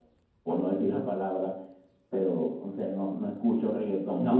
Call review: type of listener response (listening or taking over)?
listening